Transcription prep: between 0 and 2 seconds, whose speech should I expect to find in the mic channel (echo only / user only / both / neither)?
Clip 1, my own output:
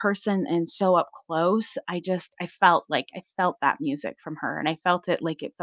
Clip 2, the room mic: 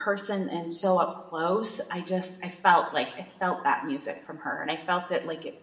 echo only